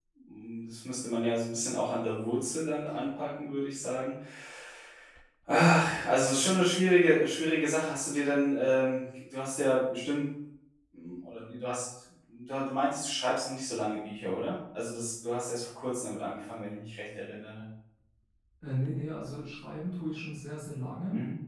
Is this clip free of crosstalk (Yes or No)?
Yes